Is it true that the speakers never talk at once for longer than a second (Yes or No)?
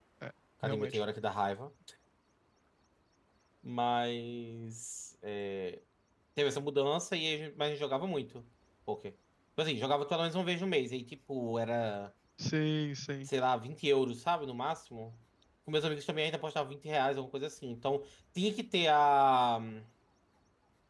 Yes